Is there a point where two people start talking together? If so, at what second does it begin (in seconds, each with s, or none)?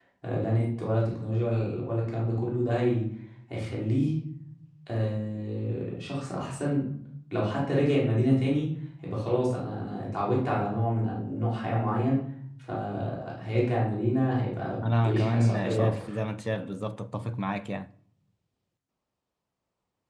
14.8 s